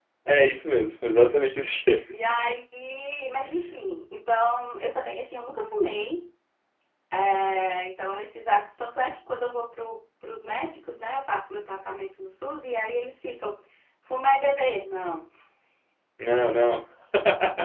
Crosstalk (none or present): none